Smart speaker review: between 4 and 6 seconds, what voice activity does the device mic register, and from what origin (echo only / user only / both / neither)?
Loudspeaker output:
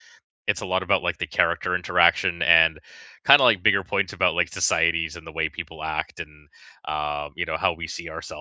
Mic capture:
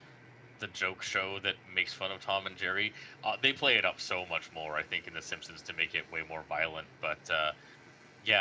user only